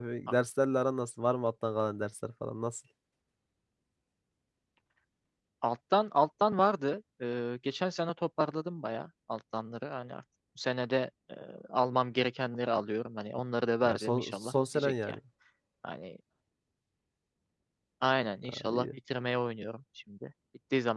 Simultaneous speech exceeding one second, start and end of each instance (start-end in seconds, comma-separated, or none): 13.8-15.2